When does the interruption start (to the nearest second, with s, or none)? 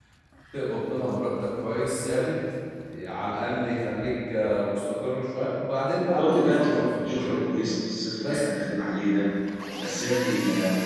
6 s